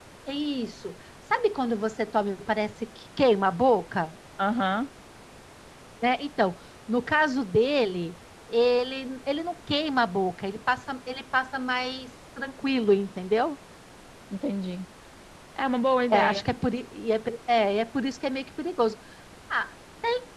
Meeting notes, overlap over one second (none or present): none